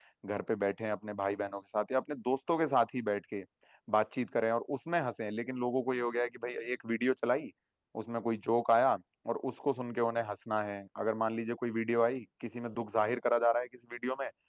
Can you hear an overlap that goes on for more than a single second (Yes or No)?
No